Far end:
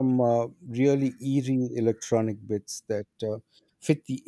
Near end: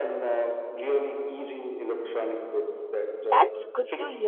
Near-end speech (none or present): present